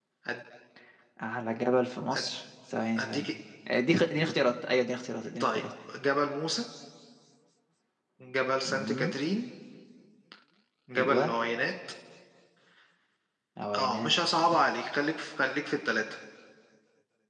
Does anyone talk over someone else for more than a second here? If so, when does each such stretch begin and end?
none

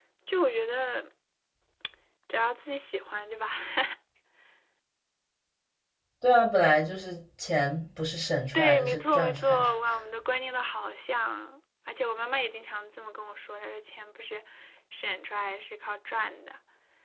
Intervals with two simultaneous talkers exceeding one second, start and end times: 8.5-9.8

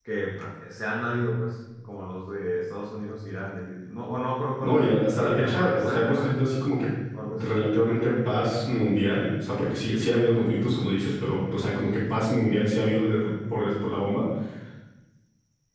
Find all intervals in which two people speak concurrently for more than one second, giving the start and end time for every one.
4.6-6.4

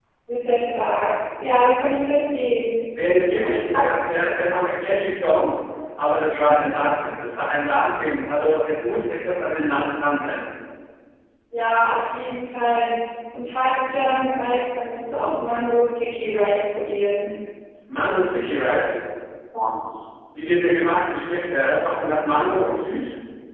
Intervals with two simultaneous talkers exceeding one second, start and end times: none

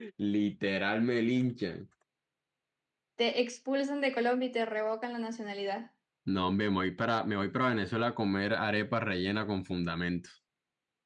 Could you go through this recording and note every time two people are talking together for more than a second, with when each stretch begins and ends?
none

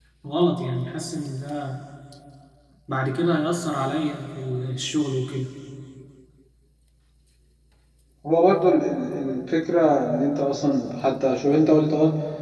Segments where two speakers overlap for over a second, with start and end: none

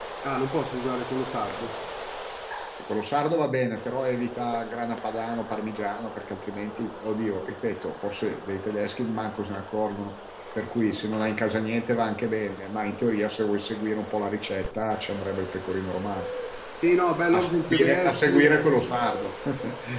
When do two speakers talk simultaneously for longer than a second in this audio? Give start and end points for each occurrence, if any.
17.3-18.5

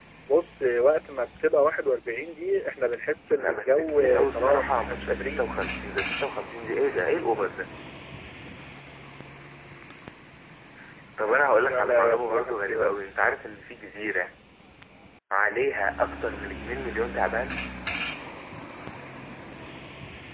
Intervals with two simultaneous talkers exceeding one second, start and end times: 3.4-5.6, 11.7-13.0

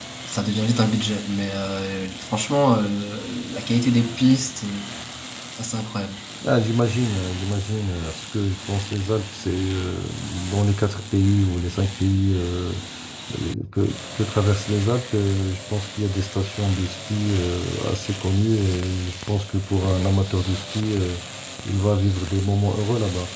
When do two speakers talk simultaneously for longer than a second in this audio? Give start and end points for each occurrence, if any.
none

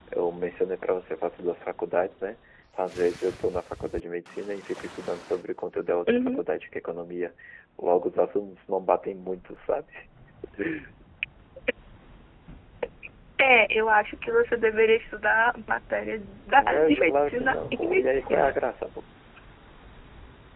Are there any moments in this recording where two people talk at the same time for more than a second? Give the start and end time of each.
16.6-18.6

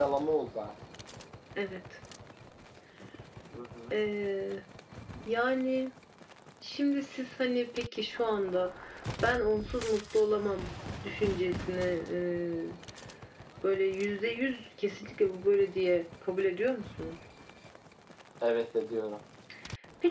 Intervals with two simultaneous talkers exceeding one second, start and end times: none

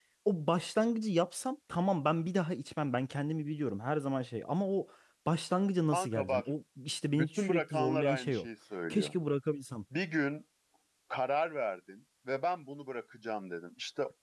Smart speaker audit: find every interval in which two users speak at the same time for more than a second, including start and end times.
7.2-8.5

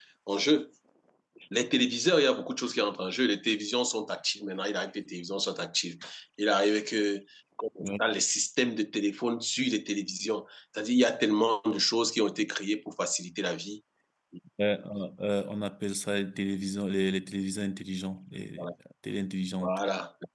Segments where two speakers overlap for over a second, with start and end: none

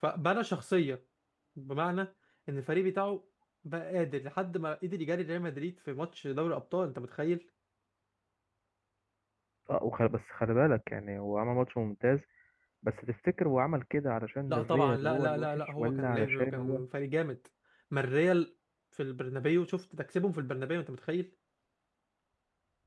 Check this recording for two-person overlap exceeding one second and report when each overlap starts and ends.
14.5-16.8

